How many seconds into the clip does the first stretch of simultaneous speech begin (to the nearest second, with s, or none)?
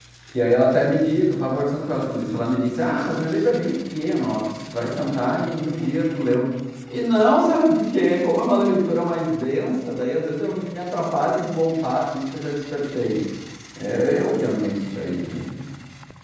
none